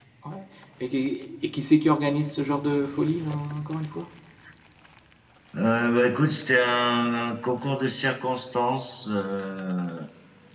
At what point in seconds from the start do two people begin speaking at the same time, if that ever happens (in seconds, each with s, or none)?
none